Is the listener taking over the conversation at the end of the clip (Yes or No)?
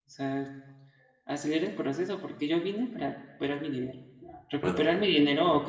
No